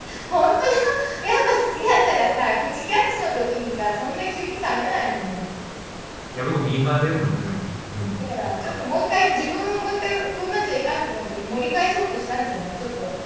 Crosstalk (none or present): none